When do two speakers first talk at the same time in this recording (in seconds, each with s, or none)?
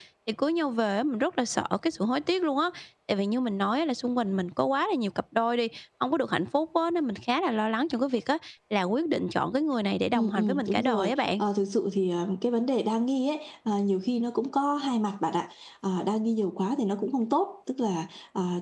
10.1 s